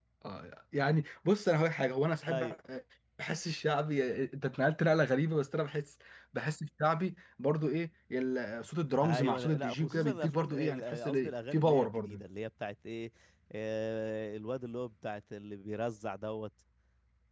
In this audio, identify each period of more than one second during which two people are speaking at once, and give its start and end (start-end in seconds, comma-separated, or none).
9.0-12.2